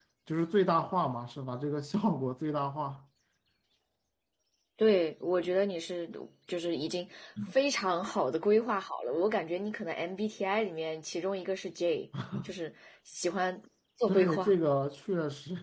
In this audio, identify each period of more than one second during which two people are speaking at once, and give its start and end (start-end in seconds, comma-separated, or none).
none